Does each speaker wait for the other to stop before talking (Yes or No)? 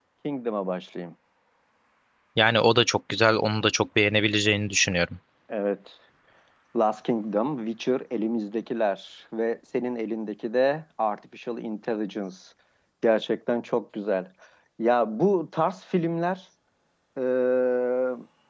Yes